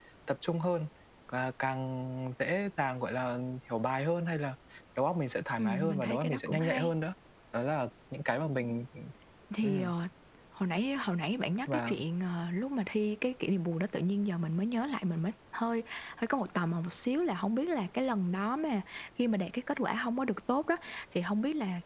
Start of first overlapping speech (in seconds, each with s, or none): 5.6 s